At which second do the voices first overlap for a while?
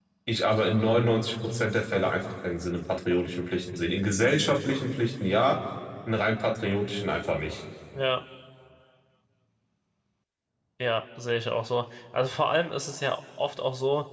none

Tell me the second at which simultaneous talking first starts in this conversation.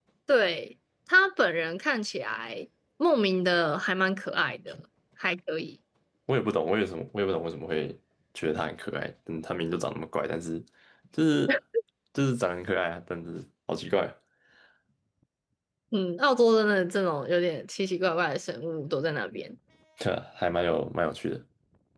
none

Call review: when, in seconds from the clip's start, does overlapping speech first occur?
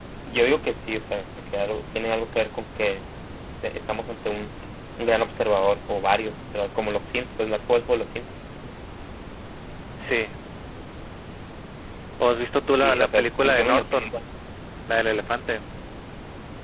12.8 s

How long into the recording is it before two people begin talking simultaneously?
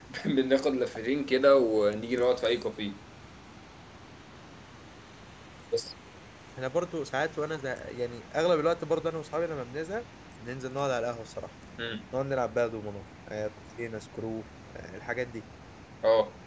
none

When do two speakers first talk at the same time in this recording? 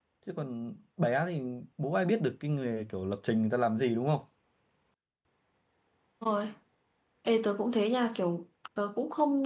none

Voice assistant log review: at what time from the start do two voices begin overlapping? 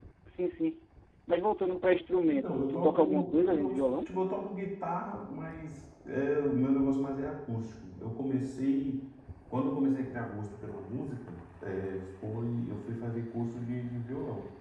2.3 s

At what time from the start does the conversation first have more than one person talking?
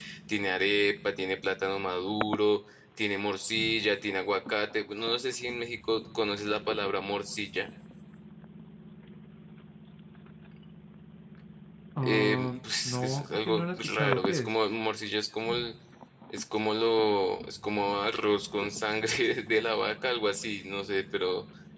12.0 s

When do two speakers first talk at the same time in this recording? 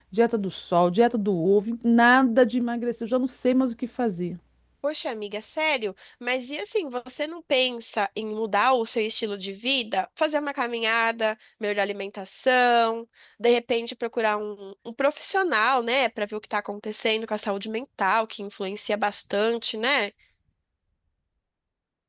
none

